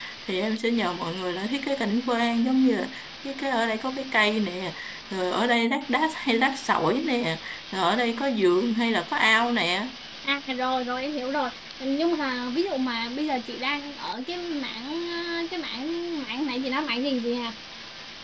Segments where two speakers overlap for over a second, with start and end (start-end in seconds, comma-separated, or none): none